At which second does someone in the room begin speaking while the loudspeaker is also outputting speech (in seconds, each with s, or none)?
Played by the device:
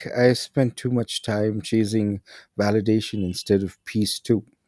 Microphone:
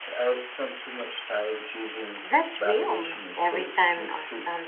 2.2 s